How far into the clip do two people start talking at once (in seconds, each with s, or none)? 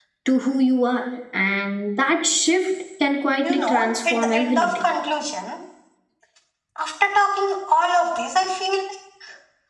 3.4 s